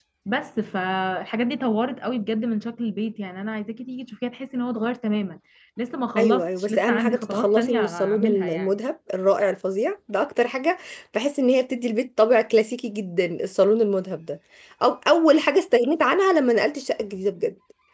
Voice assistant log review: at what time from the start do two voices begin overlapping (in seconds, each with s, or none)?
6.2 s